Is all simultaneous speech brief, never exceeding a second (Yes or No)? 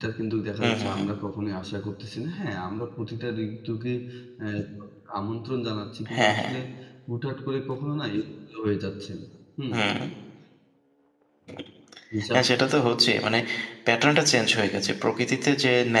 Yes